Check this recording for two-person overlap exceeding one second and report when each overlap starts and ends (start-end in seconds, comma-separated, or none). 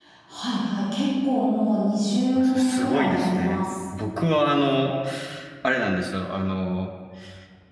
2.4-3.6